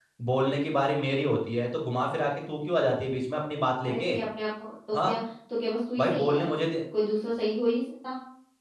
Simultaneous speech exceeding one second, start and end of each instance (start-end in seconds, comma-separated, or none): none